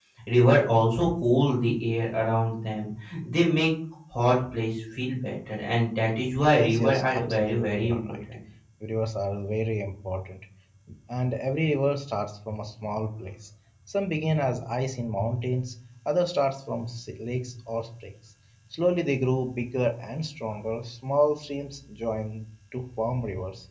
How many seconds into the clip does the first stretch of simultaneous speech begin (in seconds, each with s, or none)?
6.5 s